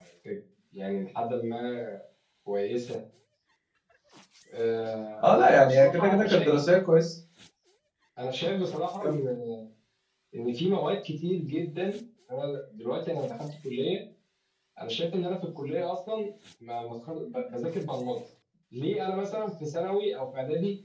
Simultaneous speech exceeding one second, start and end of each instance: 5.2-6.5

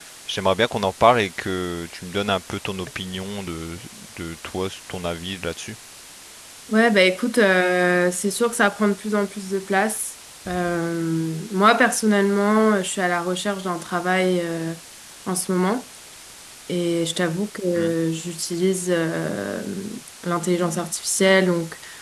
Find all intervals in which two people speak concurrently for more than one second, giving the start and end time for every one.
none

